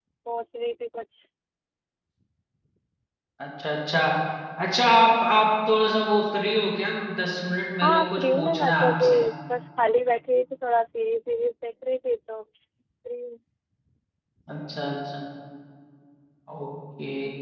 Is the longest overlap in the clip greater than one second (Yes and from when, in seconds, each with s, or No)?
Yes, from 7.8 s